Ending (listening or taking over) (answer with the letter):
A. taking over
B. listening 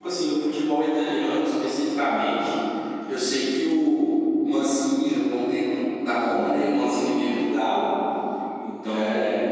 B